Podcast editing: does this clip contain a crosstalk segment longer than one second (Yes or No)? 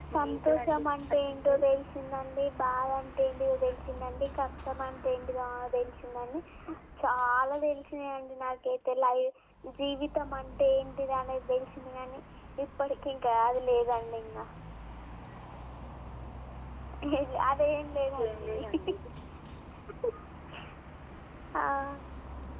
Yes